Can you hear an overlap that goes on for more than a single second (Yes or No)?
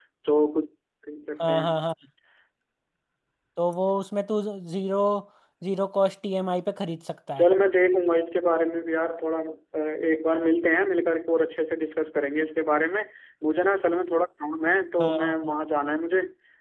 No